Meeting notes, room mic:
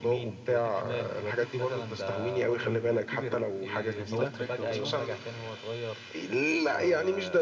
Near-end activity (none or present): present